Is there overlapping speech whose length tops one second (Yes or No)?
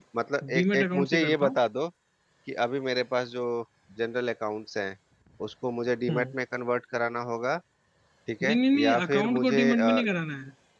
Yes